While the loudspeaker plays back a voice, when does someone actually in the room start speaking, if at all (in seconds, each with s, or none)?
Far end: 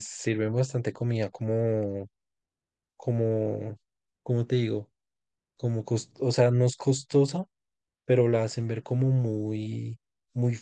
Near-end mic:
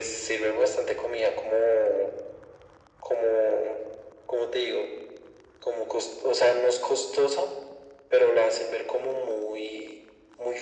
none